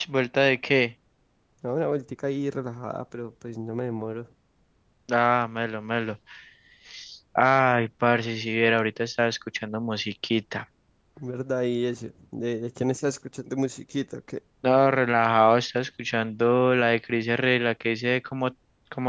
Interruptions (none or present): none